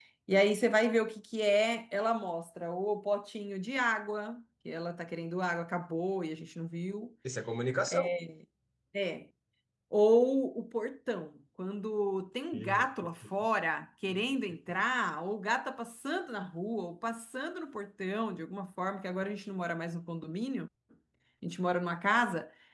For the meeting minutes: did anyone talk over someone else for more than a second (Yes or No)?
No